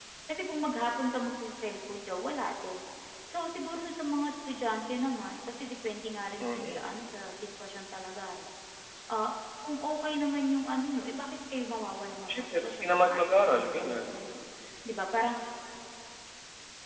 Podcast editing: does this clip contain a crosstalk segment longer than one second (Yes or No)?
Yes